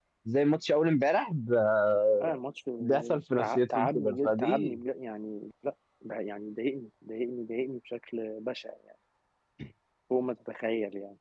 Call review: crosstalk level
present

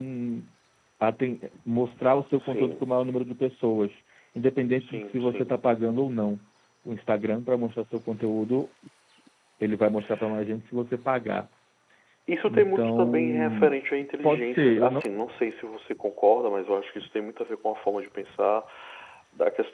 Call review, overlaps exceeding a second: present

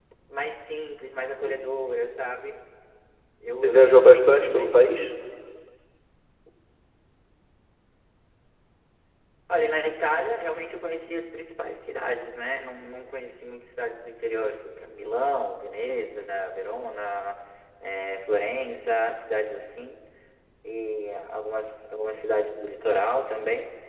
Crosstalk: present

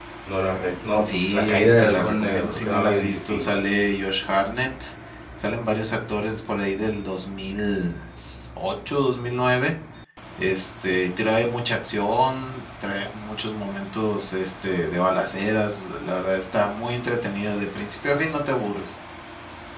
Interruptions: present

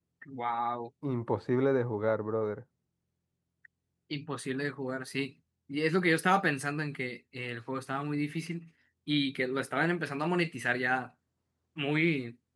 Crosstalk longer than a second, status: none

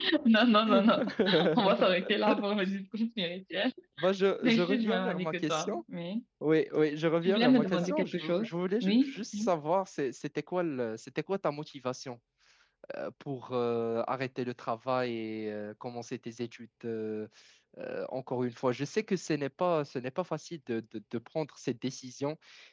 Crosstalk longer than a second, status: present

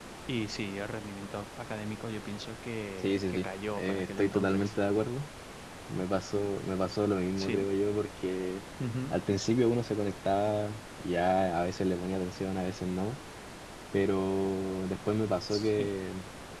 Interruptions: present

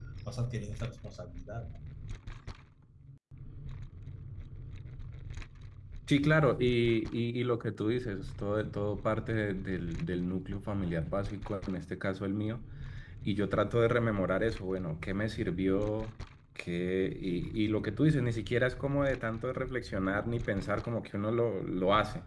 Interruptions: none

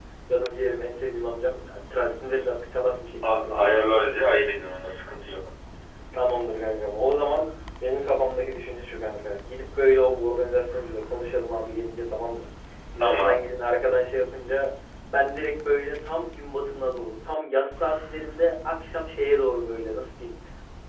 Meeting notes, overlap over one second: none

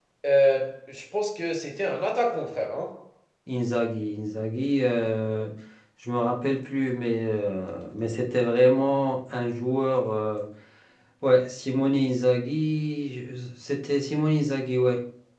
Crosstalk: none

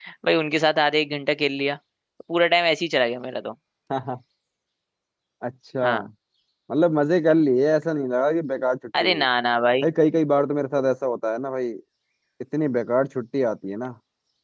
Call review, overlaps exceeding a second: none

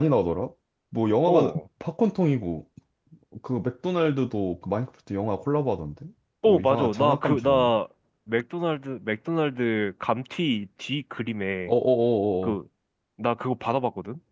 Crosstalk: present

